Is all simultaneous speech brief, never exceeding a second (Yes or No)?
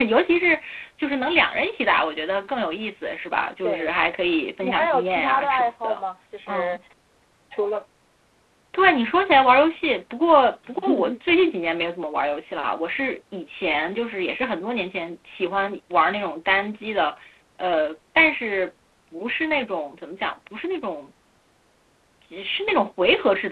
No